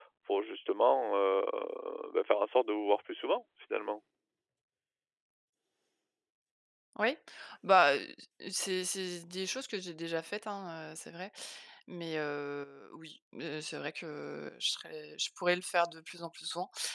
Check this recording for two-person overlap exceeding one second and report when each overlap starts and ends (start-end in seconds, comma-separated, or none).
none